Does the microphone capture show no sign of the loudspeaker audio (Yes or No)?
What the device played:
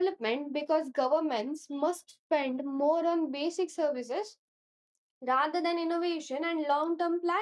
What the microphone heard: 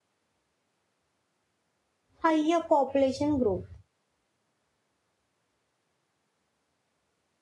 Yes